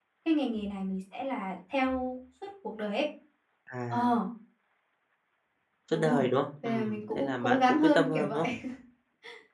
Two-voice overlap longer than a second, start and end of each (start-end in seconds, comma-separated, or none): 6.6-8.4